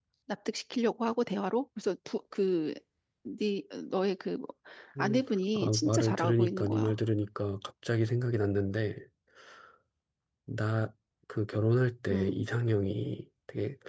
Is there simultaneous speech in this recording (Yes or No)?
Yes